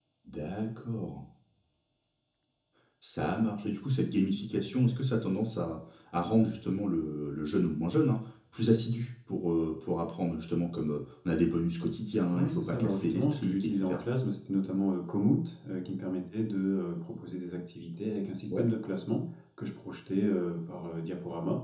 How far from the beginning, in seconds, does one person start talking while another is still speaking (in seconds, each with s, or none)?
12.3 s